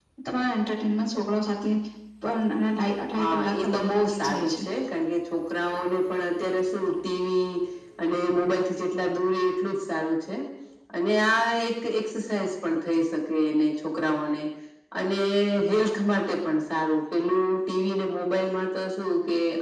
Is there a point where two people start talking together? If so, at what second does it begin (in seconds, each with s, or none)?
3.2 s